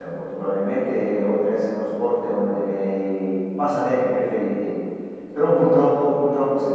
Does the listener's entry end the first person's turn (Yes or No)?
No